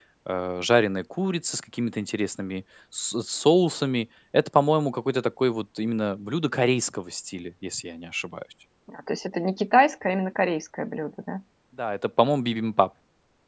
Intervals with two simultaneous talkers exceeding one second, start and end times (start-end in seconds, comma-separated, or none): none